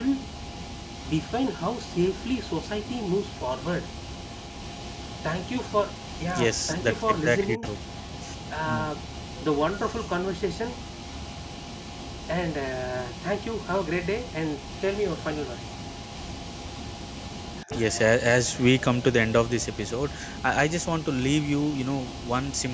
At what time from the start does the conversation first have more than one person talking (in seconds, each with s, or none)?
6.3 s